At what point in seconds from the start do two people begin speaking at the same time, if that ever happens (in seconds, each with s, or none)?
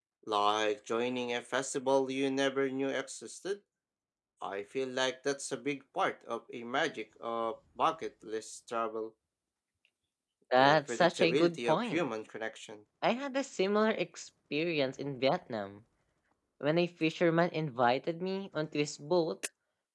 10.6 s